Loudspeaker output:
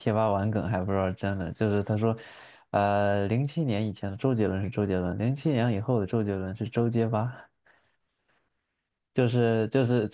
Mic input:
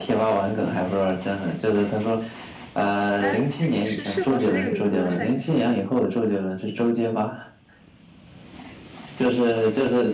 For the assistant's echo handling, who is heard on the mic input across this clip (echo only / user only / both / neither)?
both